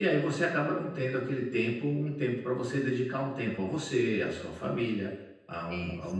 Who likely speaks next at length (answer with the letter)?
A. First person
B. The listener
A